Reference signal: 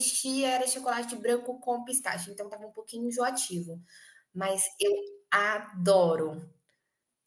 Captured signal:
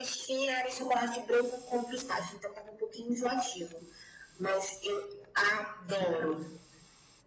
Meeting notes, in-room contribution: none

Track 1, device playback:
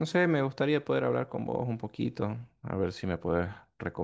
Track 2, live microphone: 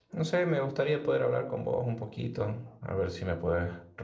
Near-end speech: none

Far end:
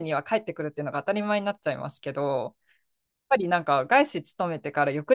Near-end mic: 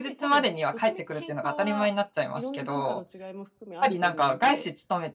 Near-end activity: present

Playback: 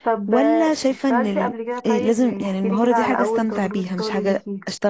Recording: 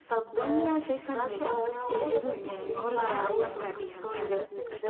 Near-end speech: present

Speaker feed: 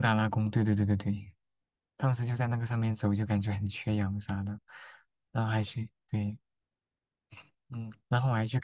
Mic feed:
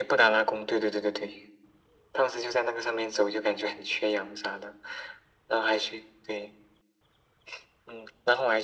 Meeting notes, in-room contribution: none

